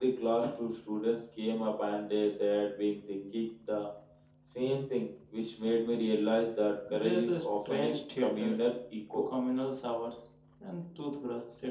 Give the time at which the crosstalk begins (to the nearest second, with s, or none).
7 s